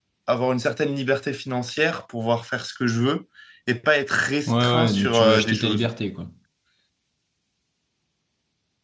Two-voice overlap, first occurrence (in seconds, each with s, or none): 4.5 s